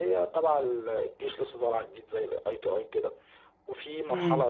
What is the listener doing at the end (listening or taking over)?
listening